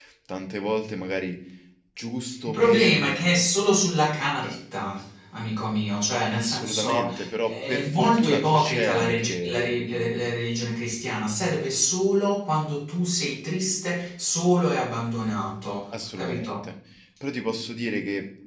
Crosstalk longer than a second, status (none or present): present